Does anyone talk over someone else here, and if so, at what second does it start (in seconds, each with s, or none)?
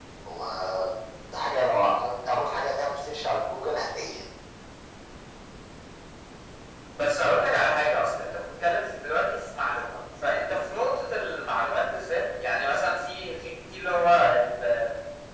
none